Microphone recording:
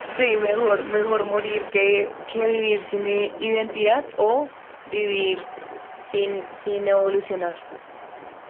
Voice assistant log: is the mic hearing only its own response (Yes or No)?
Yes